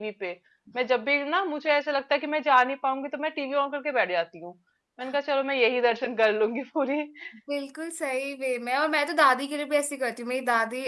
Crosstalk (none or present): none